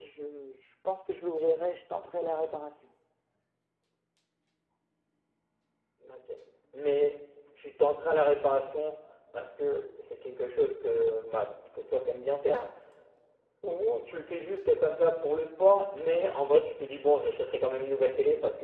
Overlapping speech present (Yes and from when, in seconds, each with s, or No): No